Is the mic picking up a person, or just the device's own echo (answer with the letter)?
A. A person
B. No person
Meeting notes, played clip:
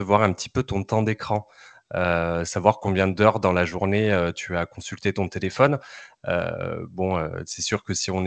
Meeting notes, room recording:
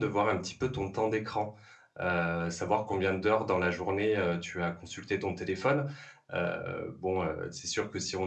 B